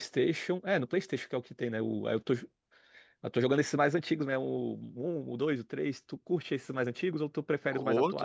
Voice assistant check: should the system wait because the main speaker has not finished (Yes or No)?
No